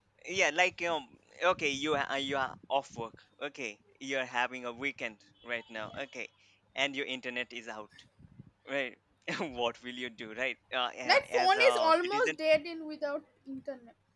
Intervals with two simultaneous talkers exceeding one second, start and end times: 11.1-12.3

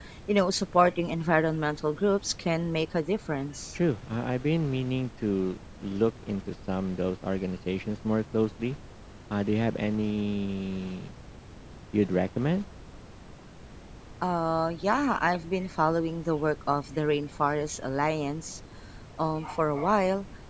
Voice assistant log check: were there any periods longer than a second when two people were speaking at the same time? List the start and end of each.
none

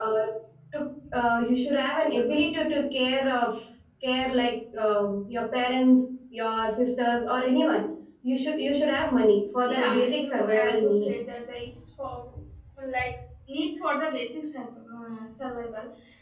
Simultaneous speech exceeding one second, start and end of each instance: 9.7-11.2

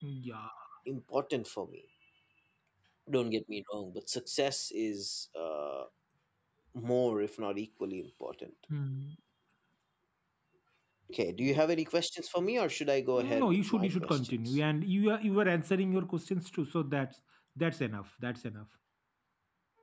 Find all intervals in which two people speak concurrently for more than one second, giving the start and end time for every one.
13.1-14.6

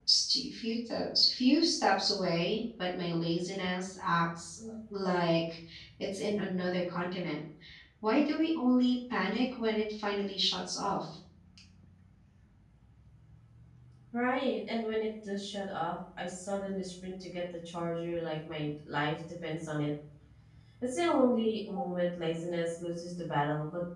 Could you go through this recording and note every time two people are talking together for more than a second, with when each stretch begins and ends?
none

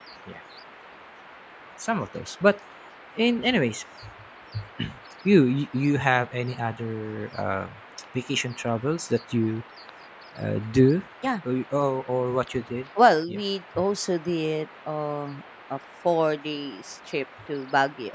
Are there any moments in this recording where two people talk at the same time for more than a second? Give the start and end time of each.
none

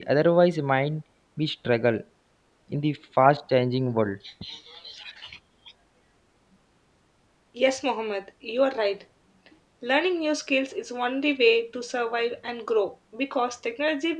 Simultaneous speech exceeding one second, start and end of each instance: none

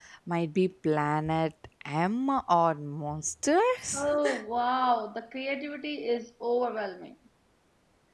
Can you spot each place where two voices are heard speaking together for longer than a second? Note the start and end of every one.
none

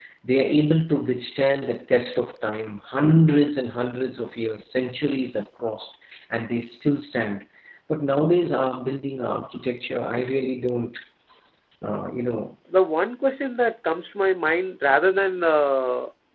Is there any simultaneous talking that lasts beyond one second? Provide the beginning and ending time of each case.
none

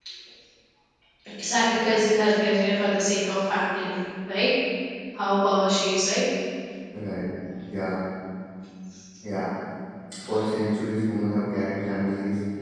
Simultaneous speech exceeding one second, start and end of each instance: none

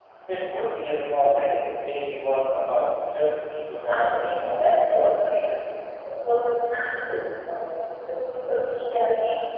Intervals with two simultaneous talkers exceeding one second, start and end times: 3.9-5.3

